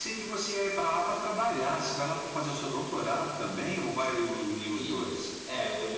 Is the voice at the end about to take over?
Yes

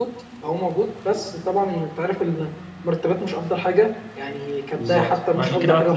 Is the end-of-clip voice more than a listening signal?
Yes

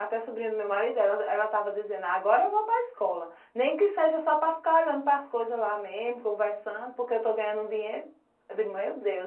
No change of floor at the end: Yes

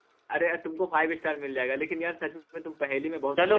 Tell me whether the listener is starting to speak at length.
Yes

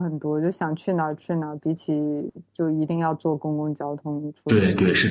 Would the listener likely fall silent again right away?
No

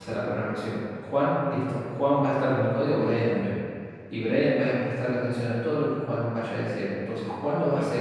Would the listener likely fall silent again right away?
Yes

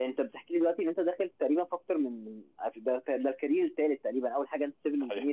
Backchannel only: Yes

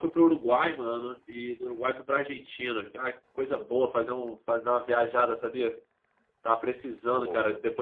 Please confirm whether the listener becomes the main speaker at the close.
No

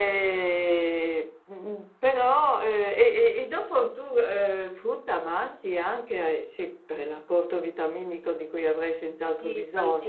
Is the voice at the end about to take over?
Yes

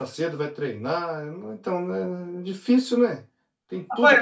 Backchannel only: No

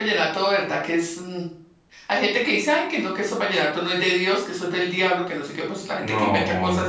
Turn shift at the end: No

